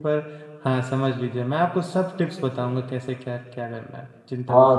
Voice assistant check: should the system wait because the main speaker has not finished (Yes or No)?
No